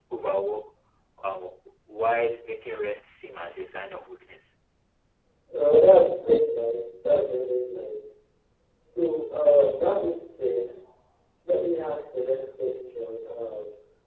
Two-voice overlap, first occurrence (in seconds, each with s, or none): none